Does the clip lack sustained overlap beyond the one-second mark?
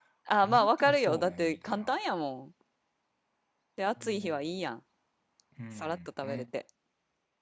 No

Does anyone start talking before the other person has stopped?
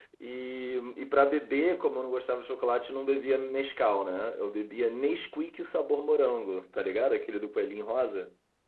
No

